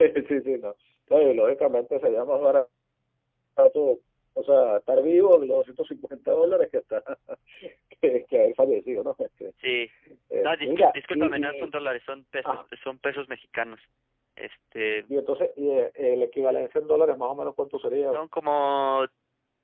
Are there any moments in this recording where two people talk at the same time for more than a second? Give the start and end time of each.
10.4-11.7

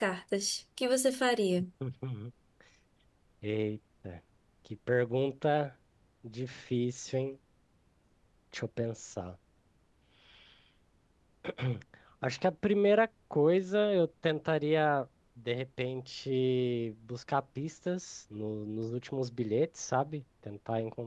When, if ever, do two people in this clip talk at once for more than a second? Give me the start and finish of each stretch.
none

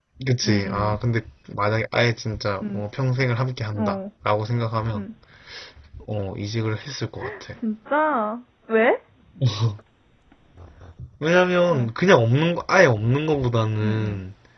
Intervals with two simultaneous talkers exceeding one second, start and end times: none

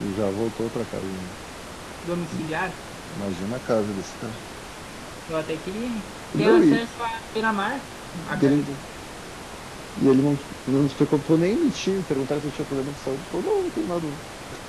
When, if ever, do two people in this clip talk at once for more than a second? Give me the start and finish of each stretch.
none

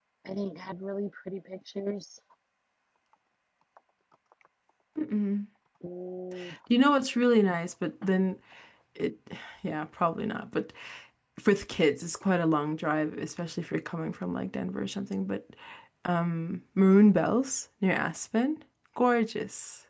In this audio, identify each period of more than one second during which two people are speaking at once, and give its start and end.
none

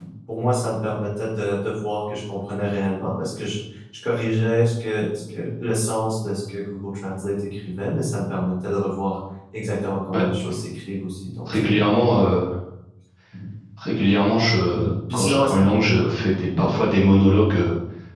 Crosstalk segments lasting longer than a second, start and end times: 14.7-16.0

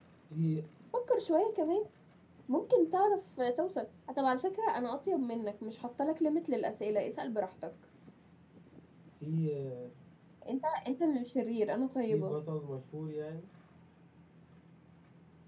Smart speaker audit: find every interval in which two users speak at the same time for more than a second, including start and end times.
none

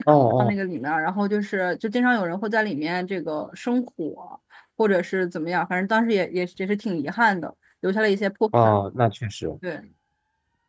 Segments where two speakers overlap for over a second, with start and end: none

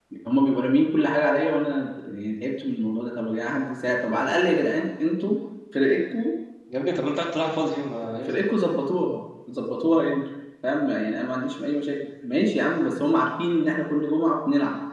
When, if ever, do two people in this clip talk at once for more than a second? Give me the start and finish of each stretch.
none

